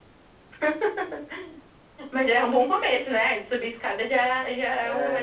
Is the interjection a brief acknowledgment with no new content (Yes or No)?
No